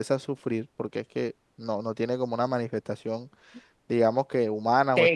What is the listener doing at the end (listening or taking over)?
taking over